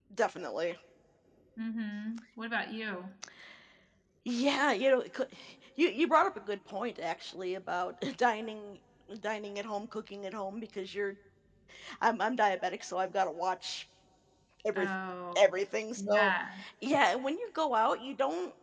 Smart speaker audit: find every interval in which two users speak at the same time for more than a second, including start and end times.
none

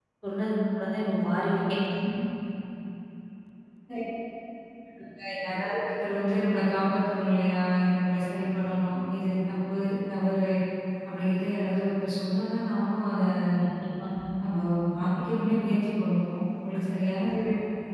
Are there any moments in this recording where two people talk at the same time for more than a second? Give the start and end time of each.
none

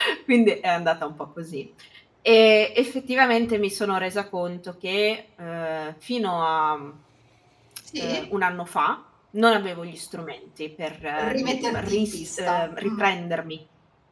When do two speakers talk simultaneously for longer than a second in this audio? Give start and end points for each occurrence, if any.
11.2-13.0

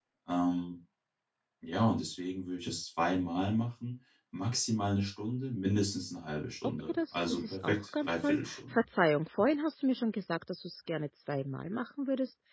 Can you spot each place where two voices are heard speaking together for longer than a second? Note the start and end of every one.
6.9-8.8

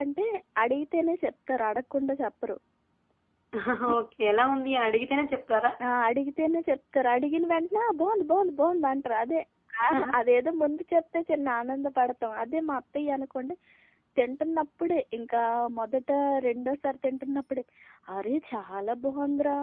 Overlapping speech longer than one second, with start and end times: none

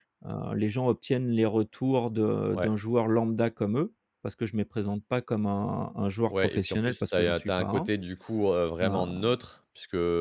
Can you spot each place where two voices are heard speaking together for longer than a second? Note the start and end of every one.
6.3-7.9

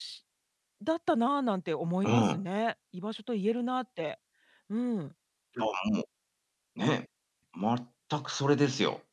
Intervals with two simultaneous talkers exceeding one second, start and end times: none

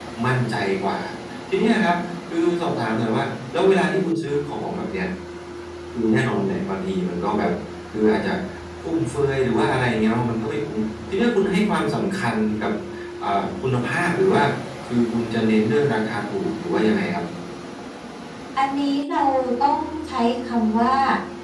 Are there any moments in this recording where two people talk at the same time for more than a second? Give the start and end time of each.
none

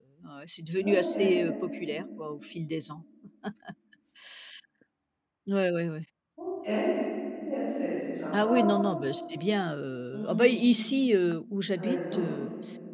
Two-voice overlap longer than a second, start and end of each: none

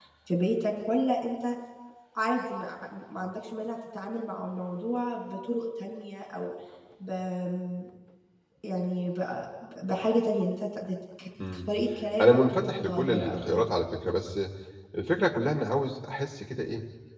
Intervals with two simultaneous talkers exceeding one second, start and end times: 12.2-13.7

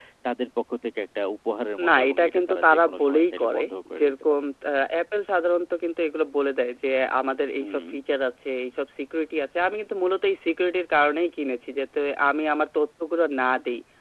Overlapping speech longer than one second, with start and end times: 1.9-4.1

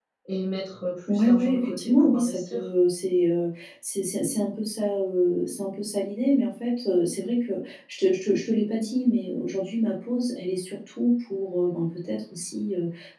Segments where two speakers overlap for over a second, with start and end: 1.1-2.7

